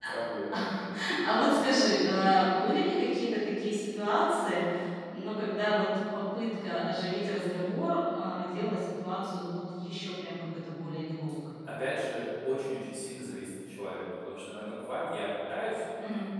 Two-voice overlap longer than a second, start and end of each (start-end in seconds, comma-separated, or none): none